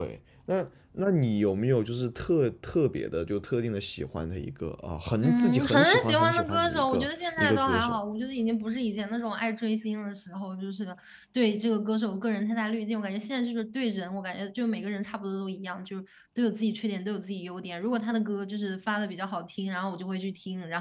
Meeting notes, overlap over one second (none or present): present